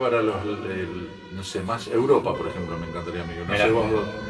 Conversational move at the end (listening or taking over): listening